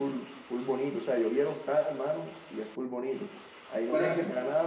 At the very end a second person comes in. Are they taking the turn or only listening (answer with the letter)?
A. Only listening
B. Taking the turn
A